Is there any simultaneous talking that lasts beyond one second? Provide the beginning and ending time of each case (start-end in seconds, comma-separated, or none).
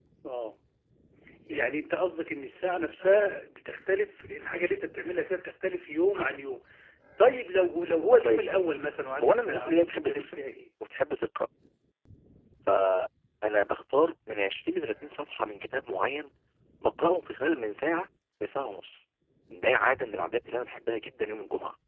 9.2-10.4